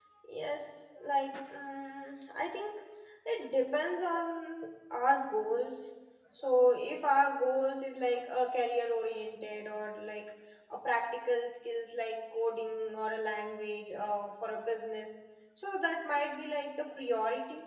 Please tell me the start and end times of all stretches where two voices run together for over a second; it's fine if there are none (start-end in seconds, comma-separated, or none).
none